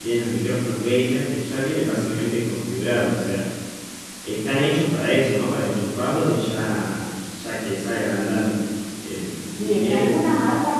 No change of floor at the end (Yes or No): No